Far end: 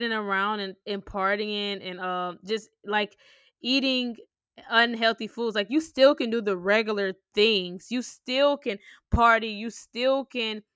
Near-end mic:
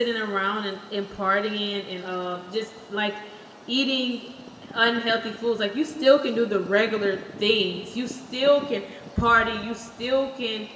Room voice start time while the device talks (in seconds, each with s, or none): none